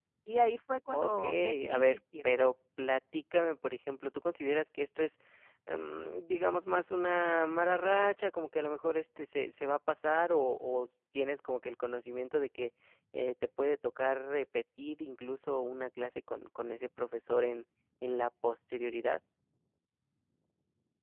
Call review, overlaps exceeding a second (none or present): present